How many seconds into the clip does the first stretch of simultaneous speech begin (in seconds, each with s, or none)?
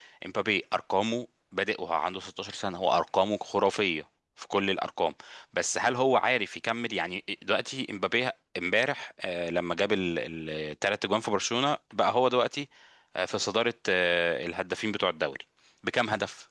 none